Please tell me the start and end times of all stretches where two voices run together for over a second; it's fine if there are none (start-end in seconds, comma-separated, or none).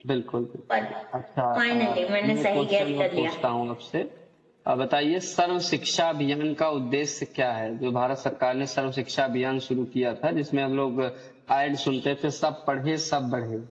1.6-3.3